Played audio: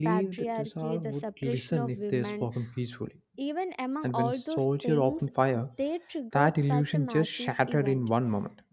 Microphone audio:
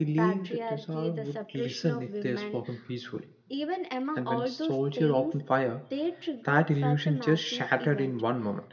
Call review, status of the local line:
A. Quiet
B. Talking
A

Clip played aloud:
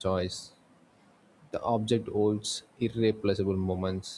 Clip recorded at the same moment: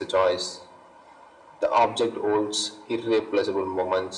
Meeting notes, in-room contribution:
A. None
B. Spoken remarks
A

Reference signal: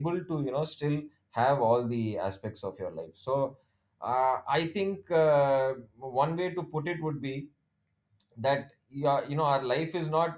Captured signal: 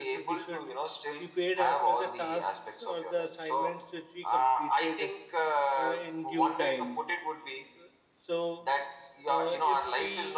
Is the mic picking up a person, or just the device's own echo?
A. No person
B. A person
B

